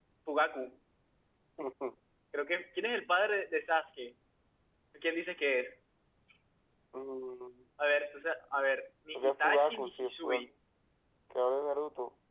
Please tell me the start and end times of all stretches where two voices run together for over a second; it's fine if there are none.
9.2-10.5

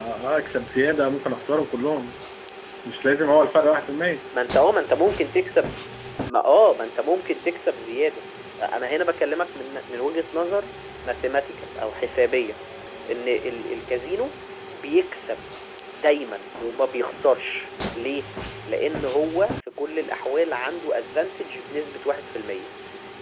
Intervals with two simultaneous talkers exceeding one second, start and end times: none

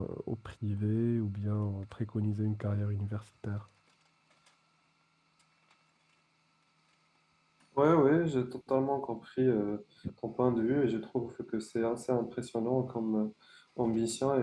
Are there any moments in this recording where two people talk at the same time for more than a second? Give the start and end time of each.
none

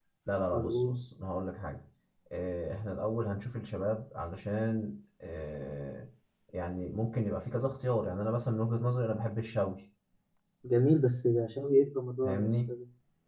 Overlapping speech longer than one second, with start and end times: none

